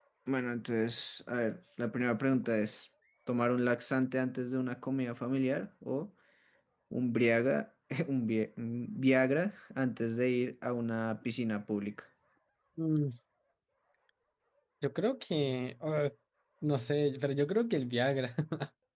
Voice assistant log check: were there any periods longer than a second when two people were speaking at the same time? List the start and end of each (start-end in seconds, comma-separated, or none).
none